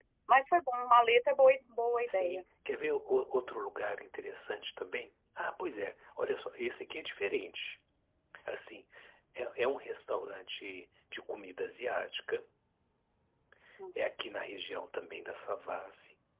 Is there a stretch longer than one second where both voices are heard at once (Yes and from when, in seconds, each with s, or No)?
No